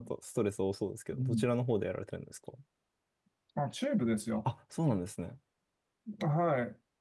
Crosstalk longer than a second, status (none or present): none